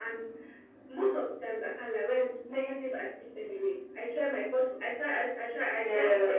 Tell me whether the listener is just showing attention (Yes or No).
Yes